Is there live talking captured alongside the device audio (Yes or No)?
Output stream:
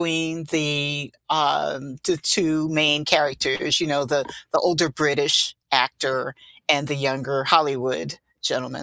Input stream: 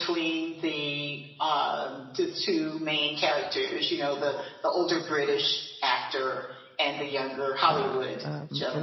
Yes